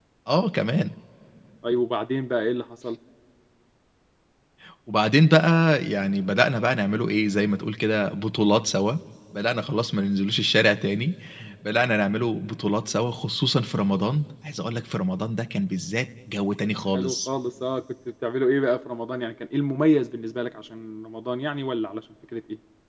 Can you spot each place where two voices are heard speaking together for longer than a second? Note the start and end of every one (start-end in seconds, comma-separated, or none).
none